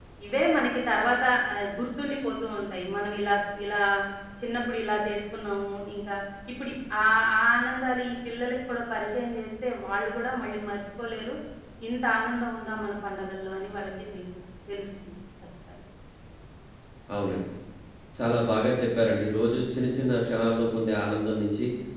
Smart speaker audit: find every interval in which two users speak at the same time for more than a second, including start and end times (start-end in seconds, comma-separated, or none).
none